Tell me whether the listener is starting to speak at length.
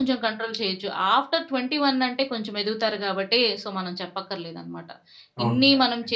No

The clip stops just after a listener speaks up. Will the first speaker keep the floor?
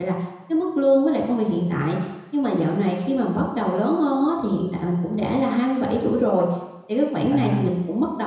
Yes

